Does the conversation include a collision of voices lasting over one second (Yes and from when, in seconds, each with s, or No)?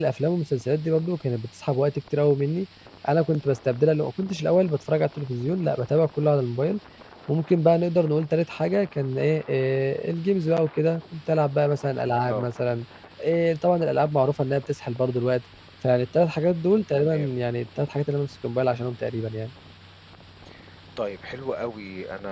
No